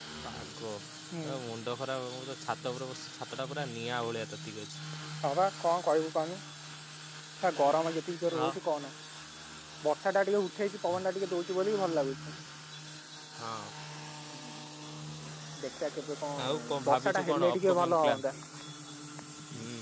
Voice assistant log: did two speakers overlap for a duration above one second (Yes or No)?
Yes